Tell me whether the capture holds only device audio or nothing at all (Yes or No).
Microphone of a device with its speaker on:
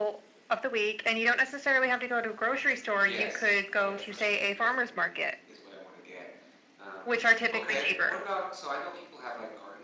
No